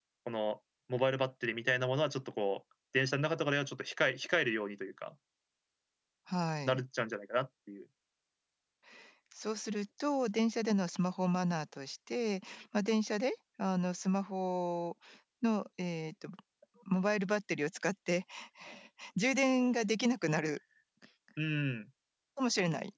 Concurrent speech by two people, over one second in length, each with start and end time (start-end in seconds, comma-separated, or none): none